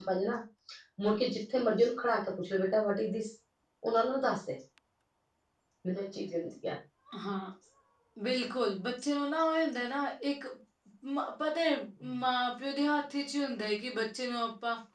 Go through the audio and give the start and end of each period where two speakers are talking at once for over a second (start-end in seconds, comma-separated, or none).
none